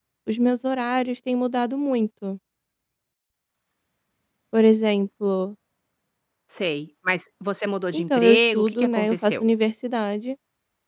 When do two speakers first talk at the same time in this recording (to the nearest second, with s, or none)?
8 s